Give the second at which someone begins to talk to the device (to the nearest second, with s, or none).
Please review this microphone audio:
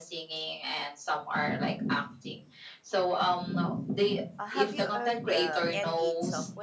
4 s